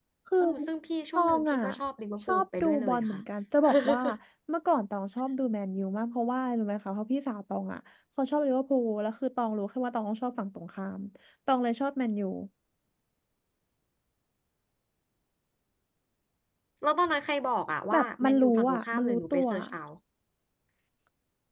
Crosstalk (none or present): present